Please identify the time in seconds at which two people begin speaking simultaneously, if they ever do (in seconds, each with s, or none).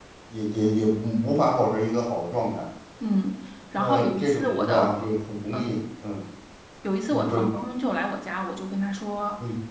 3.8 s